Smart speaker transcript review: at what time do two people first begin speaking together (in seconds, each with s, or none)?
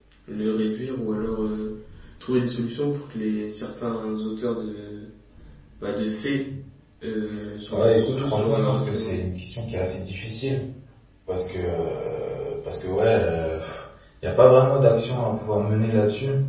7.7 s